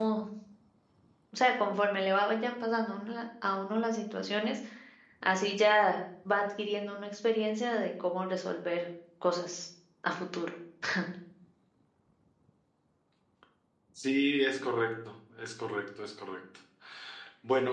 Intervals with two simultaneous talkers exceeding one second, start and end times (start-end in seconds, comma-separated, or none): none